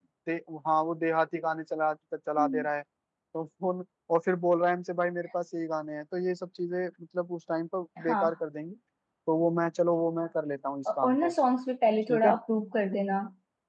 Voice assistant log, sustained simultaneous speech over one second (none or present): none